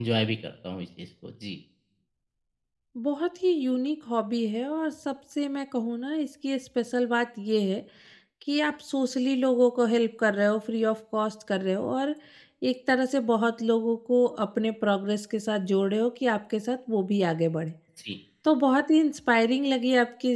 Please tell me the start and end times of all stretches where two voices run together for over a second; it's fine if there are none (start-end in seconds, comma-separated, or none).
none